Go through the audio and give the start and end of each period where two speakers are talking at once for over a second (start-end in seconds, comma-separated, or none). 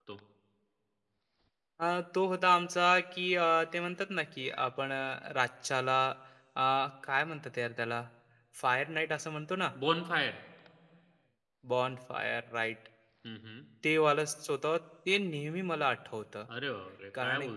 none